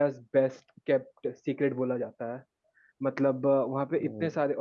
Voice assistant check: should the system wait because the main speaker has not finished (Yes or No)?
Yes